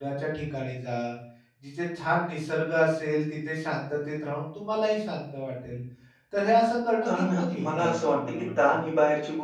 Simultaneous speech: Yes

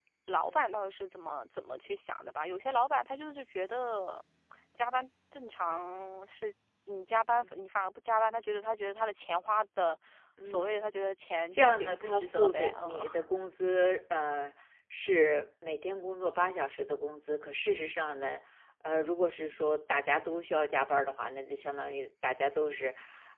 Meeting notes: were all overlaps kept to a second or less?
No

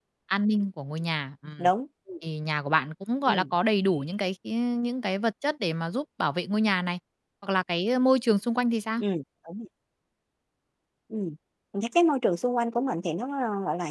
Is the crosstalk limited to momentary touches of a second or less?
Yes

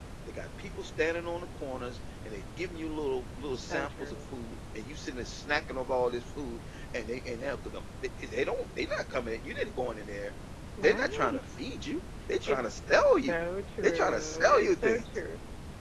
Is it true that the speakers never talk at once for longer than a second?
No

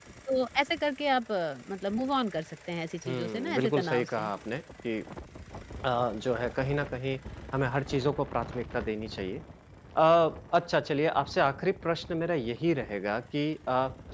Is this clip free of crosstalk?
No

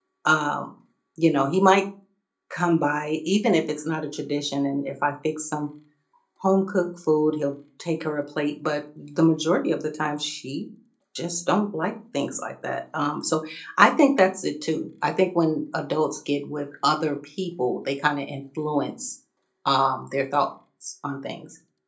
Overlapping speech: No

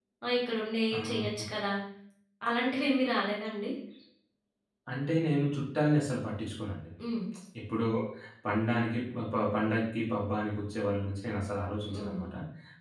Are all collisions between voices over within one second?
Yes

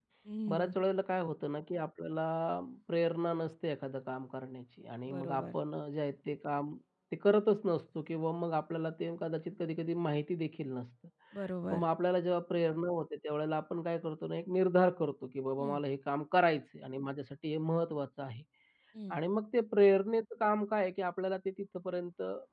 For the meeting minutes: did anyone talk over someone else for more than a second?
No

